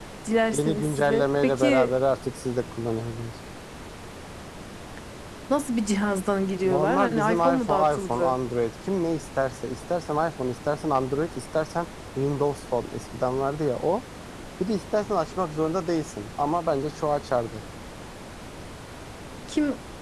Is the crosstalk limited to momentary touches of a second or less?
No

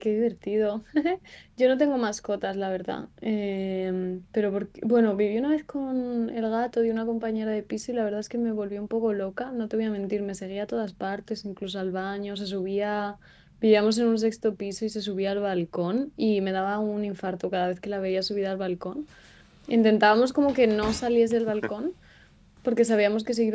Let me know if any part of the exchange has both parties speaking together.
No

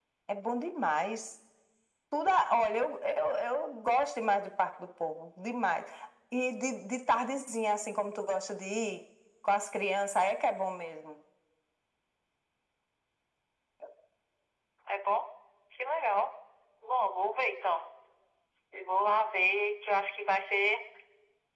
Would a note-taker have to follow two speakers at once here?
No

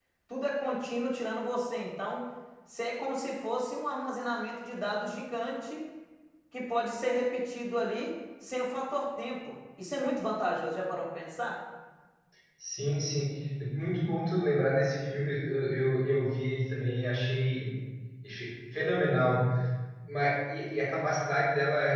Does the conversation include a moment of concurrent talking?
No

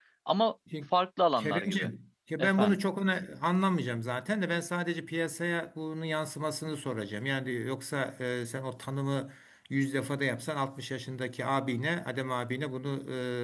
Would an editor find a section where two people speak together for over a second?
No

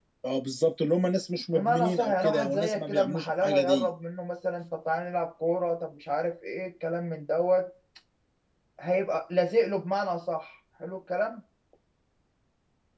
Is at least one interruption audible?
Yes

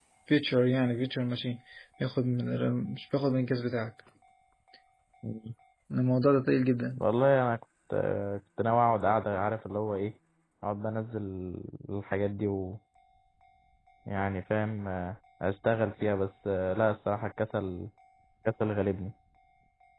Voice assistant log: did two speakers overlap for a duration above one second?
No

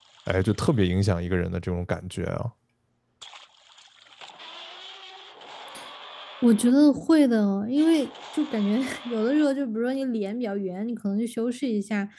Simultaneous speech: No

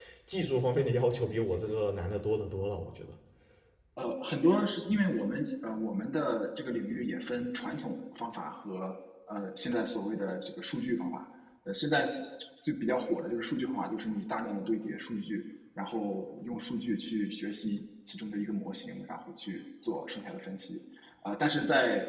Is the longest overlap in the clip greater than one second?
No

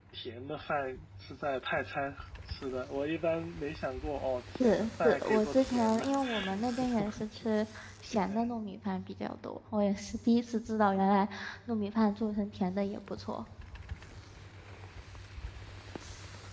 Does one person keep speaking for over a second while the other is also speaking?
Yes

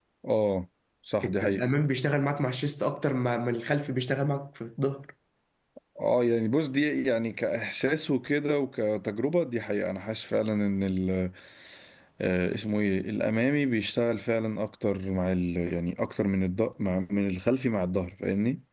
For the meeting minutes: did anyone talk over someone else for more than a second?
No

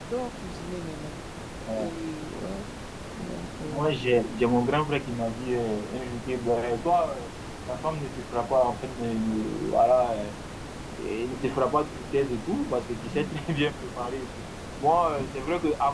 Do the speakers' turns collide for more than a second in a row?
No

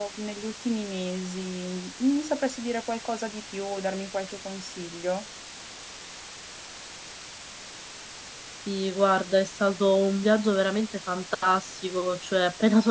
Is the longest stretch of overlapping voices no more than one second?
Yes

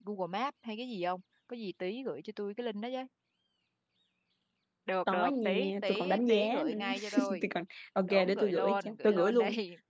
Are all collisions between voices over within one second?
No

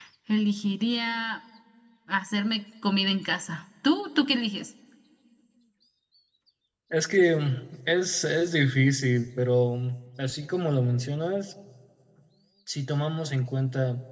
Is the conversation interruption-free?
Yes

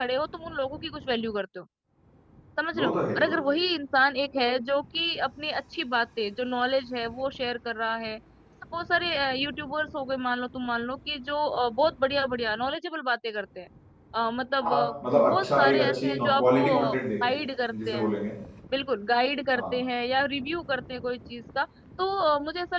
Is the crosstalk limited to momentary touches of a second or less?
No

